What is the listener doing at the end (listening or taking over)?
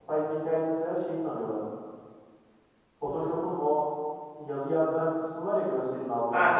taking over